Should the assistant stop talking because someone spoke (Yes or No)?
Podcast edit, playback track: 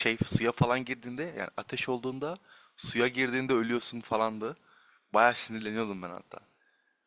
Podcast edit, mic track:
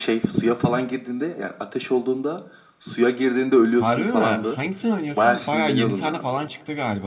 Yes